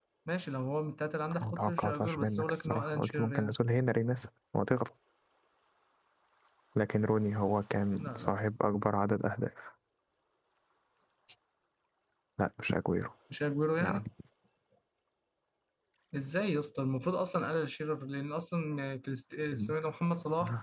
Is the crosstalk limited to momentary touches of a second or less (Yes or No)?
No